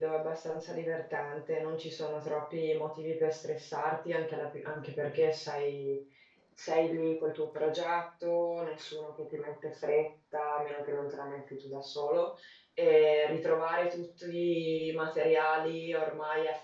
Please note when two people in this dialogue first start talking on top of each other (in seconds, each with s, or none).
none